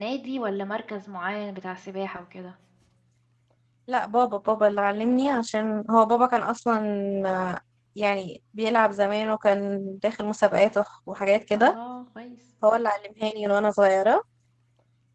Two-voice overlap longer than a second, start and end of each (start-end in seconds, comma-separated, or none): none